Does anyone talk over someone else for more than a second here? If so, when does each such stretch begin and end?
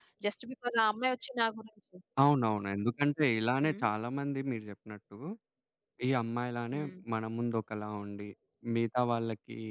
none

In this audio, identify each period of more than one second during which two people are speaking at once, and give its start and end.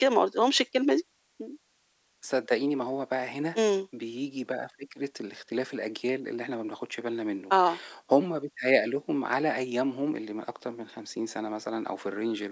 none

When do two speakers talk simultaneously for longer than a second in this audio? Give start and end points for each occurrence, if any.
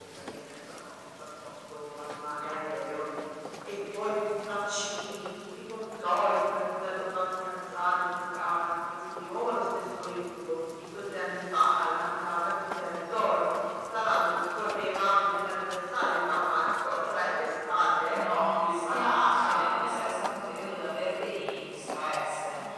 18.1-19.6

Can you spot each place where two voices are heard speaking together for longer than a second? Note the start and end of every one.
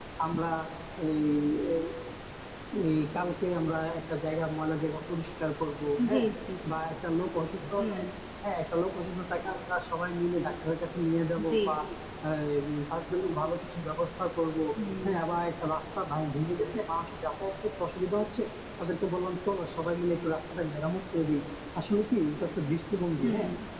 none

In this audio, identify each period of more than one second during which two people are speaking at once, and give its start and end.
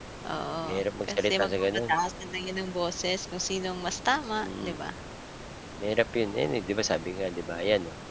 0.7-1.9

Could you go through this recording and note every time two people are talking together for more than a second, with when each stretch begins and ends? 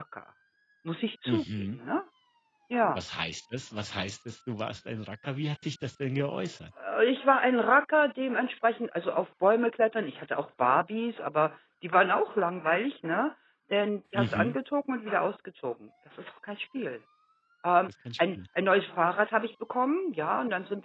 none

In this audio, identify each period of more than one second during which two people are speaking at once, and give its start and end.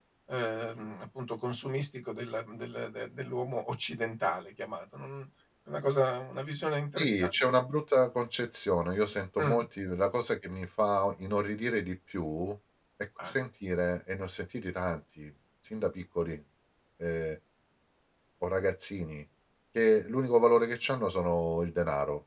none

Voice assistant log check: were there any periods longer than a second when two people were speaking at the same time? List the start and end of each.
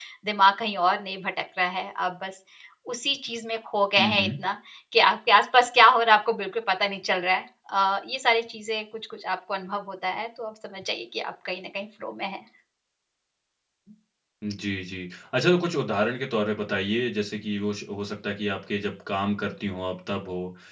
none

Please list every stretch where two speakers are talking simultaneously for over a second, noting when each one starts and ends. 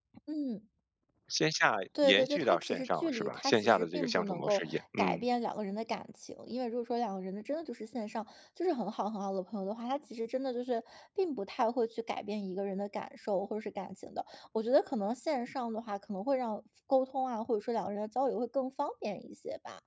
2.0-5.2

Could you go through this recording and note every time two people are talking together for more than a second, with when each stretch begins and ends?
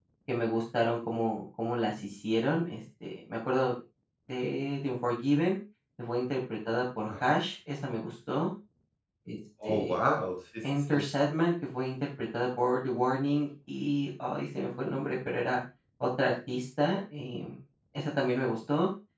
none

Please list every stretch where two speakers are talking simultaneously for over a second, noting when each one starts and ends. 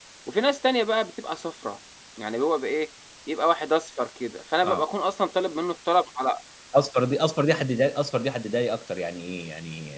none

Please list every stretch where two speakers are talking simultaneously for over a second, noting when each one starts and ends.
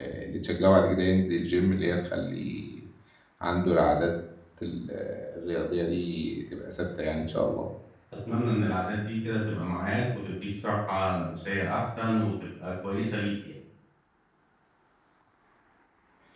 none

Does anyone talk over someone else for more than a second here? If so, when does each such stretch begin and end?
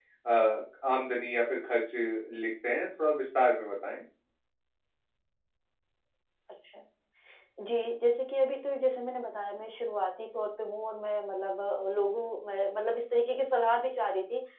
none

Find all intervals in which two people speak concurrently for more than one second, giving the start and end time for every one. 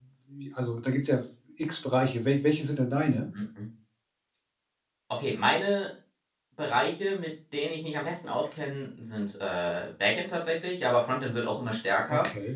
none

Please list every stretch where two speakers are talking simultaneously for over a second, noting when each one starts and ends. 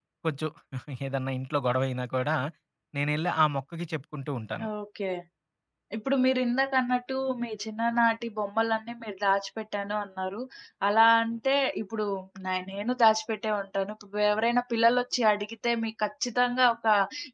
none

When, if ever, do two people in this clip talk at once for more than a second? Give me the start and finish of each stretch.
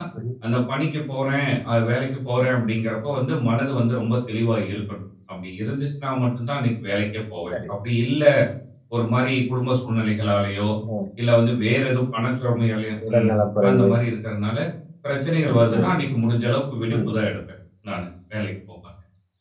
none

